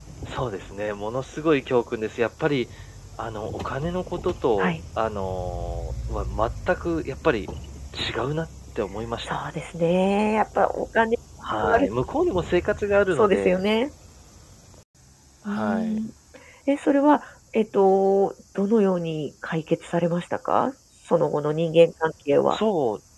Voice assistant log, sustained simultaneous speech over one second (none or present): none